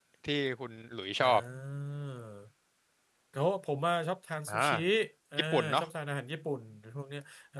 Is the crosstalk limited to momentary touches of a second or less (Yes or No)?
Yes